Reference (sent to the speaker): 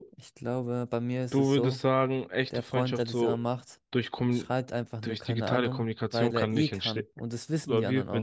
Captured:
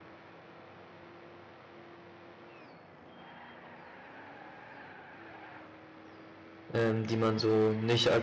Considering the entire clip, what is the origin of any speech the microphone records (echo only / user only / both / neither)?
user only